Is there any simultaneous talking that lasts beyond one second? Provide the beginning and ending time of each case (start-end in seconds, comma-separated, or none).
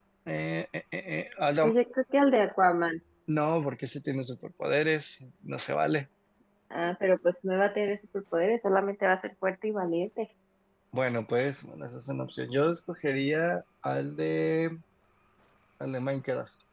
none